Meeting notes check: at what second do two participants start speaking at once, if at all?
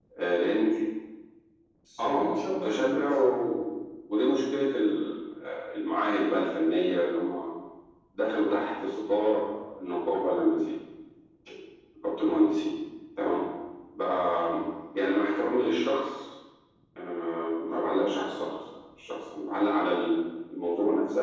2.0 s

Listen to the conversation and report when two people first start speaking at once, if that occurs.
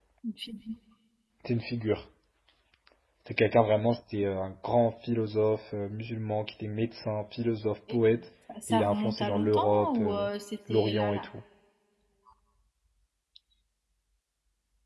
8.7 s

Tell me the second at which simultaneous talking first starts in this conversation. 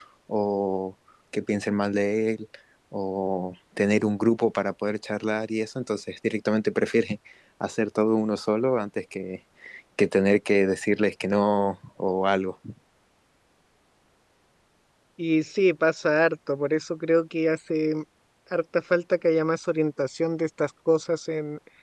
none

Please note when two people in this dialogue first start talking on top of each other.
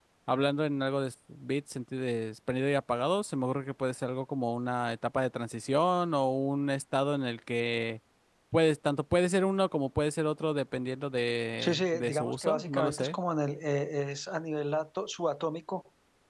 11.6 s

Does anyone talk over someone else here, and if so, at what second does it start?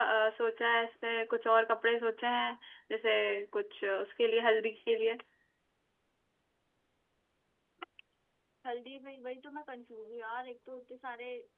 none

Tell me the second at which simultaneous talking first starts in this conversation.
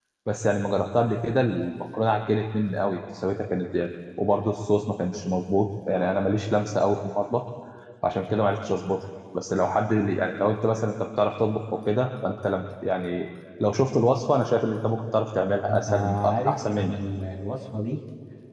15.6 s

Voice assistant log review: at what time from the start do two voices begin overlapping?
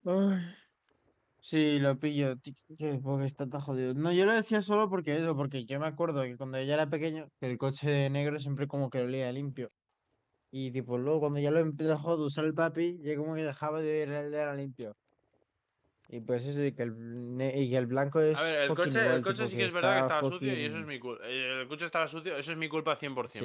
18.3 s

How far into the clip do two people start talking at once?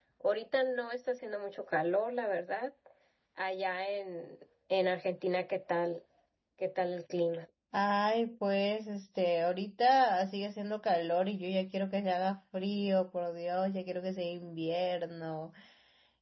none

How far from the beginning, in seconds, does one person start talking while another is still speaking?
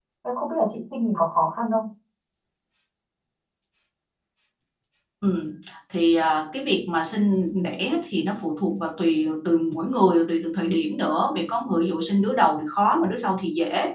none

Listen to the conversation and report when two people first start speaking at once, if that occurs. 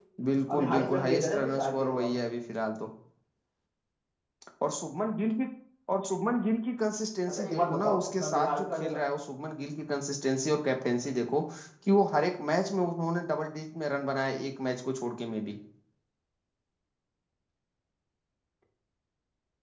0.5 s

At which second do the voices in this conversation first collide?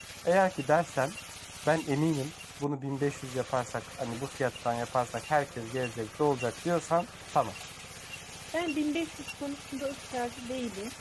none

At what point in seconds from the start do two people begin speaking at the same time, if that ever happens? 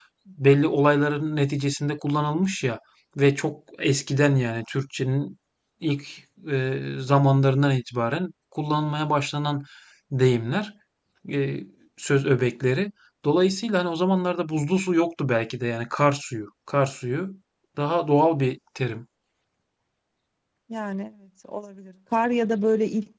none

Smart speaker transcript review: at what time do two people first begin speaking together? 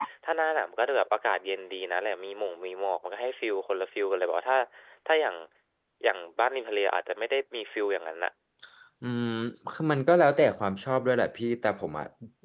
none

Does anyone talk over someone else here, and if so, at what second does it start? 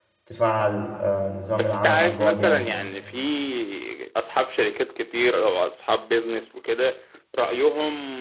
1.6 s

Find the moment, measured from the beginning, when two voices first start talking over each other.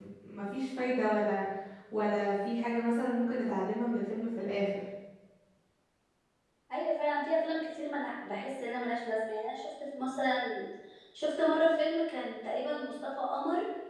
none

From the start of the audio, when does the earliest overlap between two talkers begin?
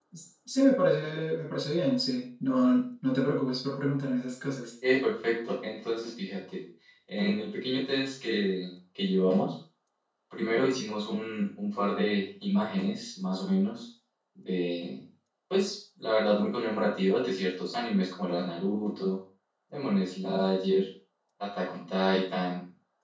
none

